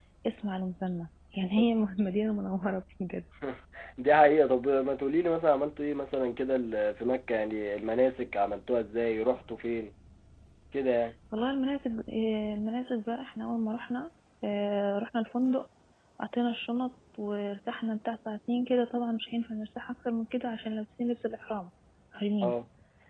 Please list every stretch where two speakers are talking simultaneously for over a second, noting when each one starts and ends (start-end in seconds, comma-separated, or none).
none